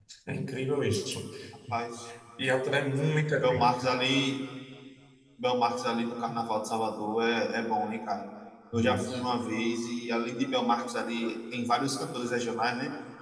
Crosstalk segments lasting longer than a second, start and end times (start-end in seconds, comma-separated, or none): none